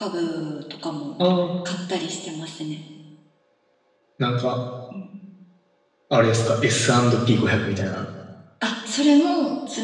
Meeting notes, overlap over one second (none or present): none